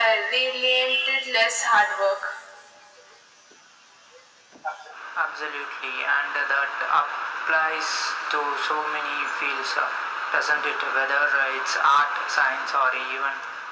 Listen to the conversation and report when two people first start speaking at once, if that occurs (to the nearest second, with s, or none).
none